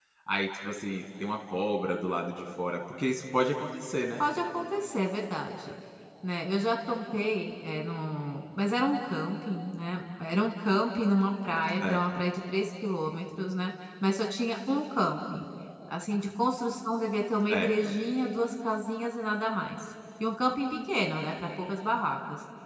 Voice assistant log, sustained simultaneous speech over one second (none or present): none